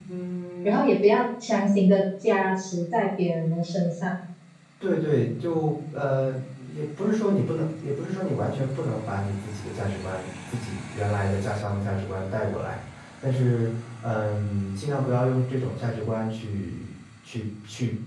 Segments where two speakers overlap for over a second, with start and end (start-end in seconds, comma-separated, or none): none